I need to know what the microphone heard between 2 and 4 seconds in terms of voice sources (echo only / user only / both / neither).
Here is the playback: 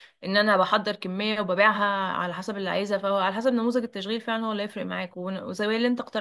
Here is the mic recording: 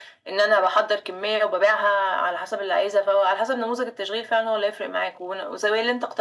echo only